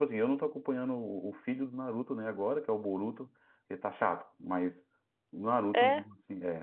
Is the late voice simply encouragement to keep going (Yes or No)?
Yes